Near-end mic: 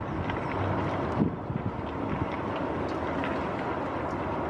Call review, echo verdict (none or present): none